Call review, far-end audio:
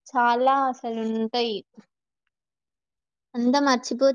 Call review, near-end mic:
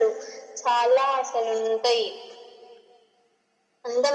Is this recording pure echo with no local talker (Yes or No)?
Yes